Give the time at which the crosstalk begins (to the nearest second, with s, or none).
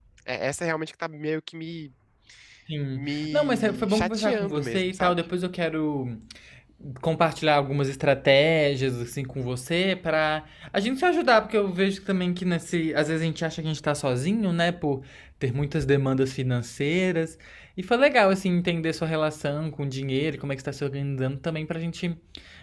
3 s